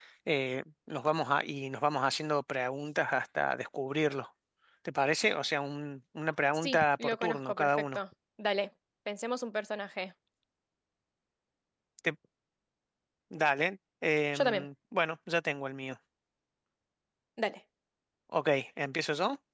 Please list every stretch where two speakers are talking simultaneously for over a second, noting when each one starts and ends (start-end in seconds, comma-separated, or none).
6.5-8.0